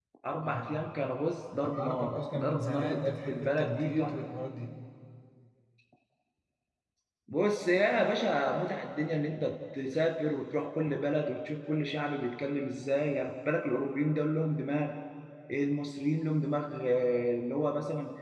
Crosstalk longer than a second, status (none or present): present